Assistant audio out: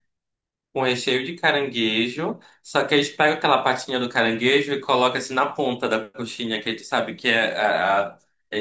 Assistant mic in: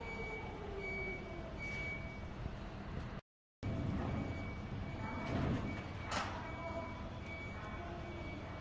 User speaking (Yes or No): No